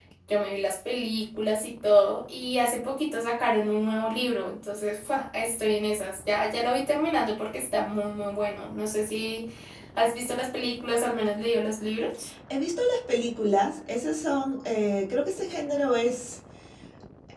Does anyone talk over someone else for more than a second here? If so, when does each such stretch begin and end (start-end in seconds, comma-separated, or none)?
none